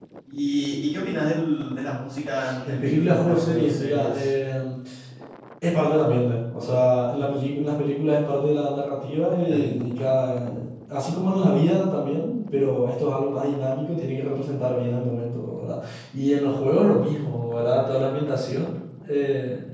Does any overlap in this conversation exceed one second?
Yes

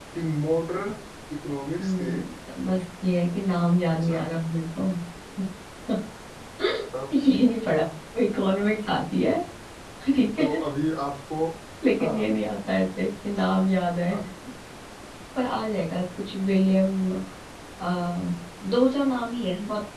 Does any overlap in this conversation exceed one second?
No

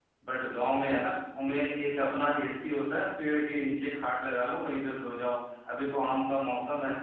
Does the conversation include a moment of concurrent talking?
No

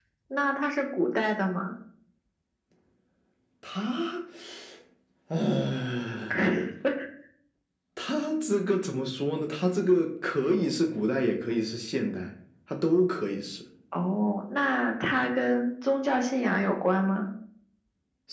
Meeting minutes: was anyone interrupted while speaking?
No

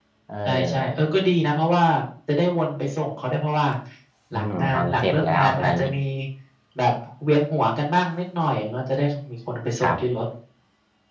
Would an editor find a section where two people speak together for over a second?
Yes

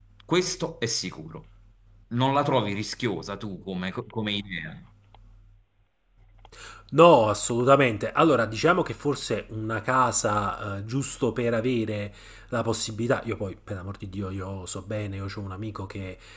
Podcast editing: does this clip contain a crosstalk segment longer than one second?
No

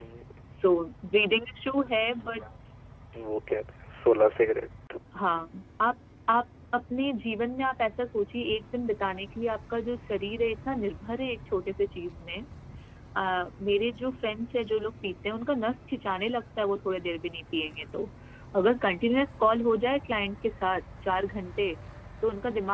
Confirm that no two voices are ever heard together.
Yes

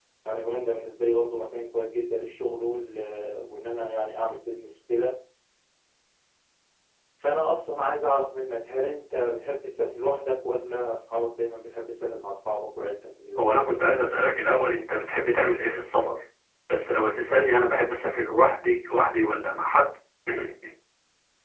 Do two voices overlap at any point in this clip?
No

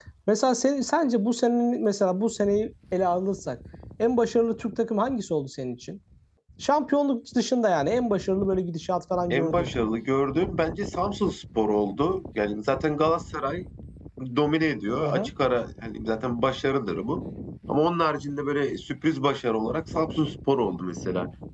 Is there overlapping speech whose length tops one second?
No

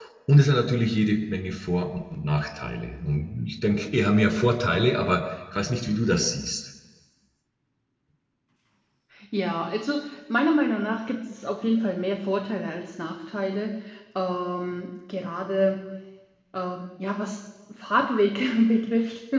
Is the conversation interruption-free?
Yes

